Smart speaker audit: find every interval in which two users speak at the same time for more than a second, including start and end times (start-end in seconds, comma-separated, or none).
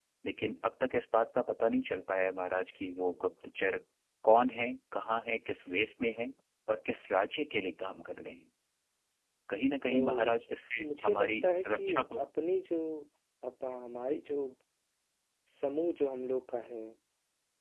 10.8-12.2